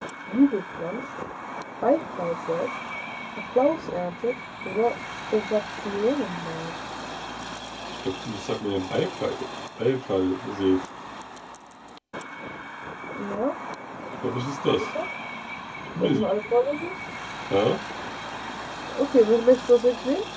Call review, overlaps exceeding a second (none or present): none